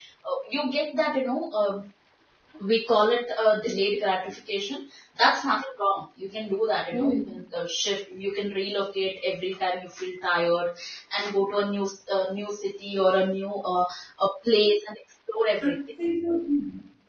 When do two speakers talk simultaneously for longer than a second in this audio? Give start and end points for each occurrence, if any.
none

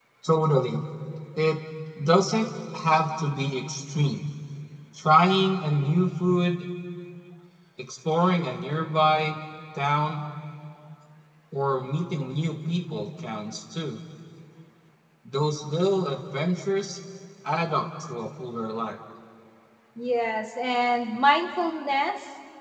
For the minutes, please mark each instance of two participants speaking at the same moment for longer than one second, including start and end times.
none

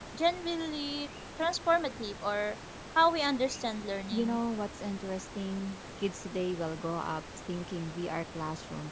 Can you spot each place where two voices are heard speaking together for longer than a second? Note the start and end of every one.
none

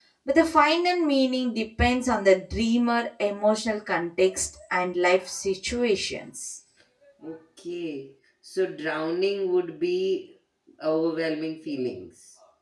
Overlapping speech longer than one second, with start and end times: none

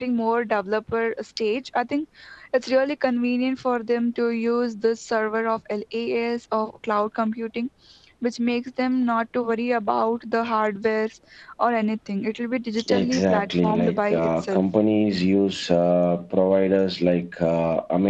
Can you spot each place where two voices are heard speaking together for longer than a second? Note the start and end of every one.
12.9-14.7

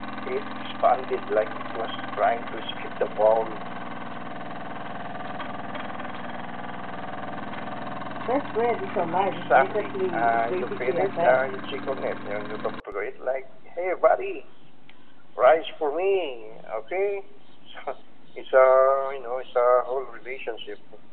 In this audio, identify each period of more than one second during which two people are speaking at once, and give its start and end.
9.2-11.4

